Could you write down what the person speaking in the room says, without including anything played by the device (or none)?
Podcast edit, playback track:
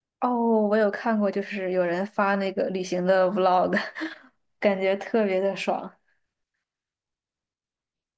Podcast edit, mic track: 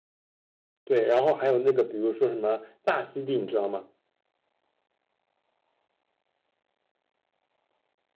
对，然后还有那个，比如说什么大溪地，你知道吗？